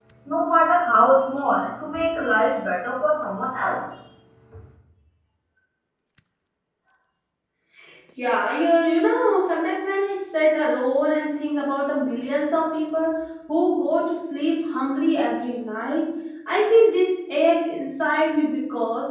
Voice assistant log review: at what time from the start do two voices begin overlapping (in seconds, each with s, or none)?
none